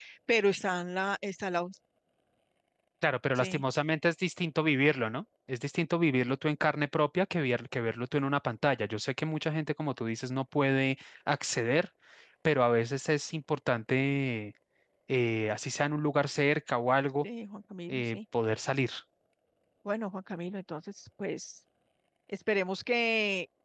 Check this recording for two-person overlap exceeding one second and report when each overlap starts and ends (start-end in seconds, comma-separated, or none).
none